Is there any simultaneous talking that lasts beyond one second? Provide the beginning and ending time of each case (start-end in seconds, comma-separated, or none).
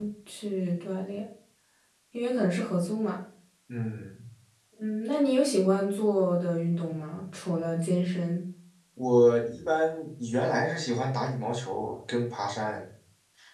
none